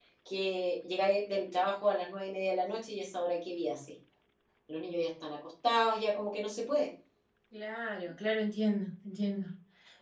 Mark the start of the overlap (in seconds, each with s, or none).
none